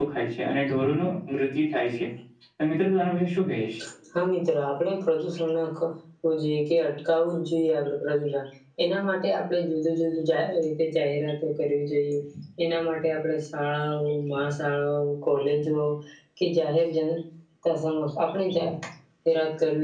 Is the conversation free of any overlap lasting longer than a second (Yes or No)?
Yes